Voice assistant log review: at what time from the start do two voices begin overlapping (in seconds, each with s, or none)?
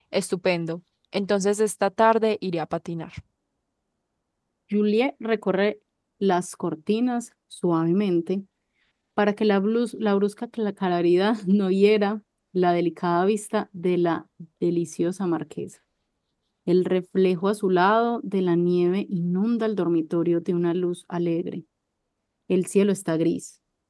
none